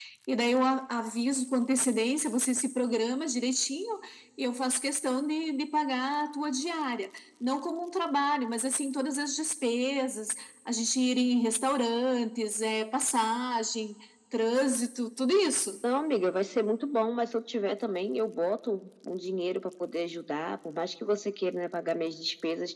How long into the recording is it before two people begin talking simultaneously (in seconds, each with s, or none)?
none